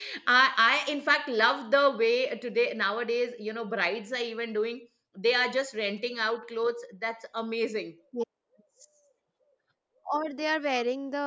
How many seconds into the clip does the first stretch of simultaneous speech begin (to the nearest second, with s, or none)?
none